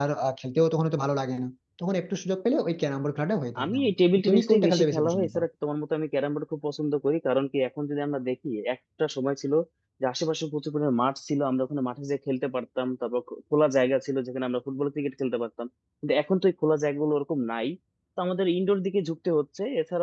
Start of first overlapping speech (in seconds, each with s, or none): 3.5 s